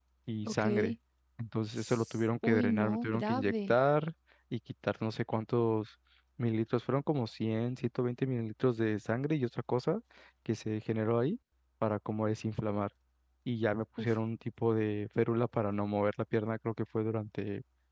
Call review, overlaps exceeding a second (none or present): present